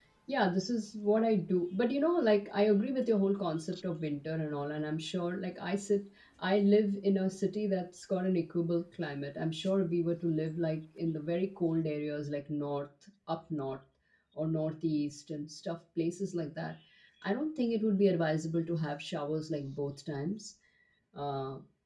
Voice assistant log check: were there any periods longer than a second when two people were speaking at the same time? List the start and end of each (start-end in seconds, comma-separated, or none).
none